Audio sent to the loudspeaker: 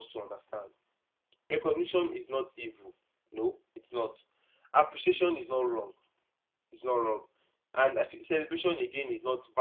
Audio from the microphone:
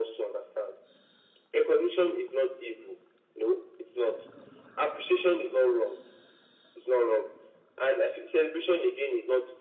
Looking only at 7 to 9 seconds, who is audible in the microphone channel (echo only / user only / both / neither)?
echo only